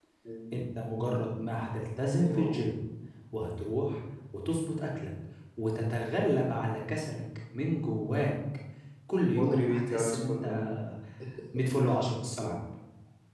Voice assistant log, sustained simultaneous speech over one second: present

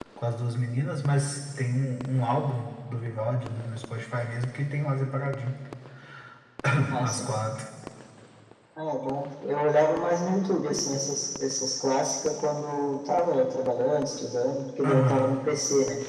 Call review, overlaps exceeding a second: none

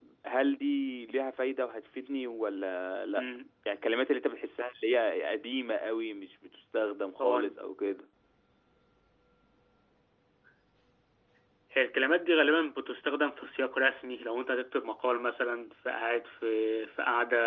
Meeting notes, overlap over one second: none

